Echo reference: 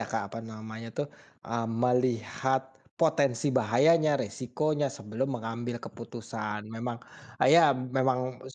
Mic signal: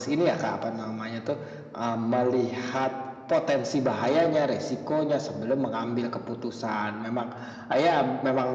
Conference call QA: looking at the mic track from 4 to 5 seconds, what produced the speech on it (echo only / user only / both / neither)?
echo only